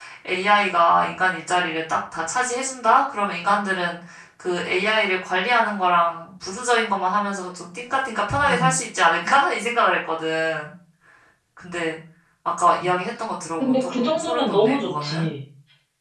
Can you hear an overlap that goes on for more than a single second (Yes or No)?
Yes